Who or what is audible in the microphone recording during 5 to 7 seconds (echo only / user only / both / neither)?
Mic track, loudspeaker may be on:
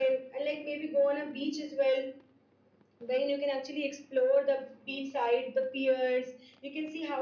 echo only